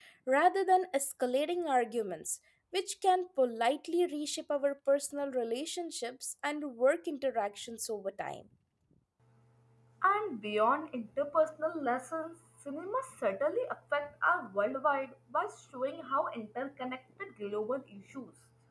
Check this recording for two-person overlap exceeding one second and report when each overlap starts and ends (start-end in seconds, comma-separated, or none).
none